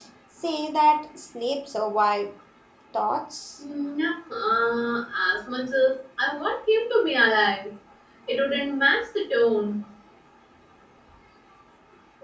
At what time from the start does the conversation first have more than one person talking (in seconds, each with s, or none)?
none